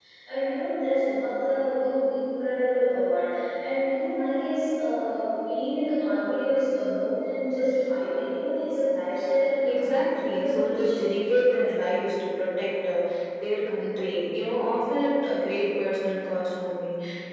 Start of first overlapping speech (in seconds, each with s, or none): 9.6 s